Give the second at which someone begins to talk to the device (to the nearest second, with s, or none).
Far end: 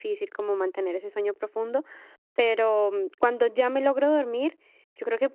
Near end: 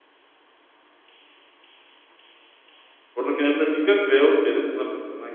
3 s